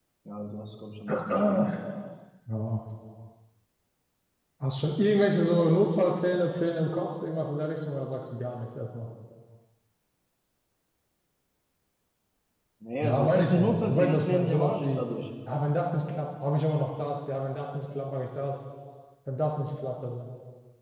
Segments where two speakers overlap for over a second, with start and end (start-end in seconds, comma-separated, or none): 13.0-15.0